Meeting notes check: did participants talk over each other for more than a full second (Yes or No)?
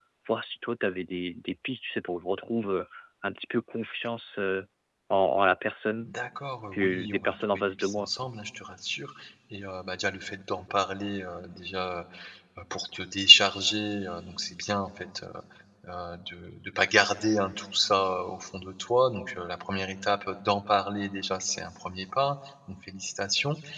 Yes